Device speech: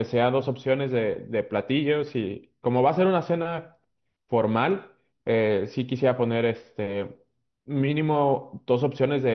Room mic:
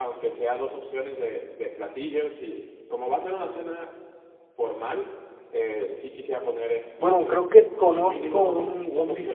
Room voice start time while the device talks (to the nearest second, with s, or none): 7 s